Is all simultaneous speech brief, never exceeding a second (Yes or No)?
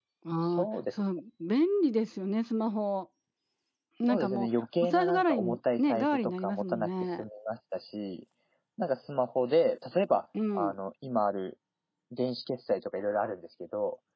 No